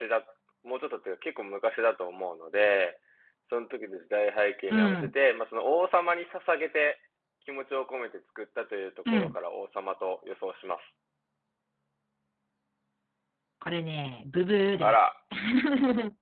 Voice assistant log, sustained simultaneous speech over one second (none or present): none